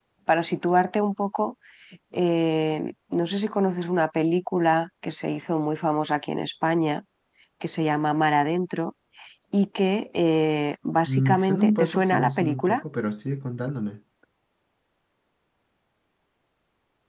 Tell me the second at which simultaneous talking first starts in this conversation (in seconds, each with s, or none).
11.1 s